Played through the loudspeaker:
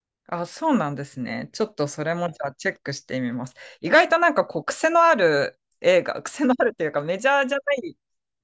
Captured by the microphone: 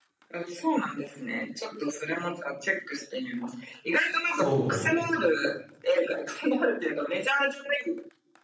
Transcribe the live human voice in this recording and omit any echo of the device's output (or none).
そう。